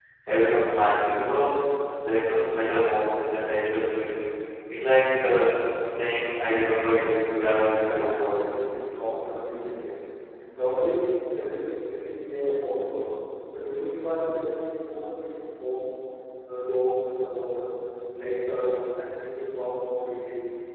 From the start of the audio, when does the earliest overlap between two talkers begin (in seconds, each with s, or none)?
7.2 s